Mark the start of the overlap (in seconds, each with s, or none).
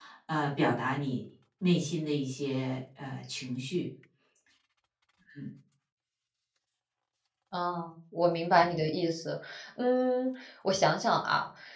none